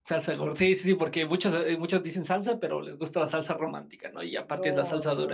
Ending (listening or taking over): taking over